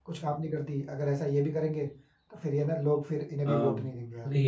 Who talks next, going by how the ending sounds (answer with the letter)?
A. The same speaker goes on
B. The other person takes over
B